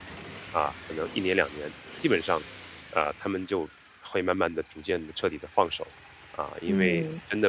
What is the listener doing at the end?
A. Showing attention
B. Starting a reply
A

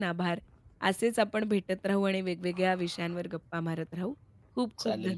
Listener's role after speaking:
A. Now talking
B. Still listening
A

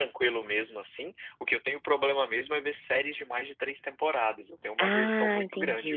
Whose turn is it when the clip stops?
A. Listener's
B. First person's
A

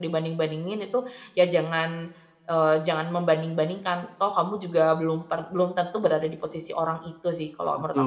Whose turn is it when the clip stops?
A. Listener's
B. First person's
A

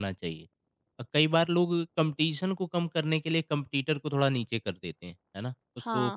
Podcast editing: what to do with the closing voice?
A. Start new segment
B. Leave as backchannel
A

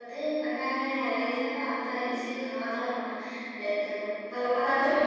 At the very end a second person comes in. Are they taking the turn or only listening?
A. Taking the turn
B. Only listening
A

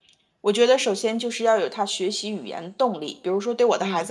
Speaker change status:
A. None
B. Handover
A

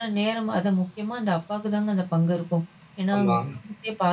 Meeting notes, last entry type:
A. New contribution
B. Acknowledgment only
B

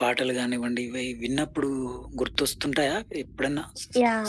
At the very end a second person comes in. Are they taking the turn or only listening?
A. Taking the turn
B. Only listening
A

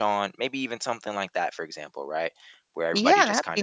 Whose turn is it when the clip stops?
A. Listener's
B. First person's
A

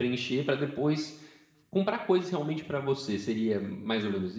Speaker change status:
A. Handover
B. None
A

